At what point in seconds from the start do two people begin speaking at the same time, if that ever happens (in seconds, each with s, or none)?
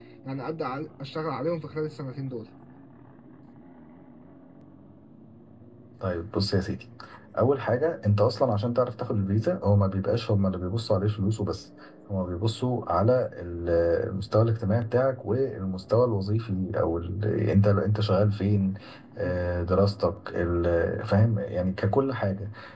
none